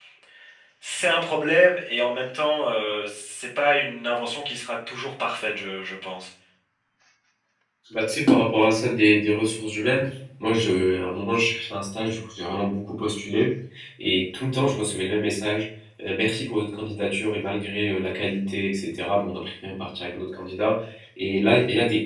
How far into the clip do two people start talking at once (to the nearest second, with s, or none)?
none